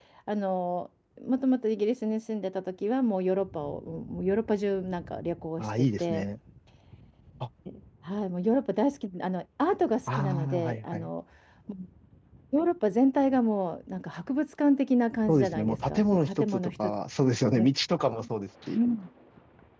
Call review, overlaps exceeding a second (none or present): present